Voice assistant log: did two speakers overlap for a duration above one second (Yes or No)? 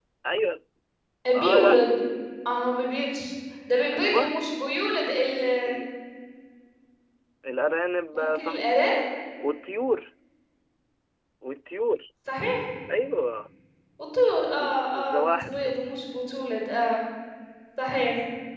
Yes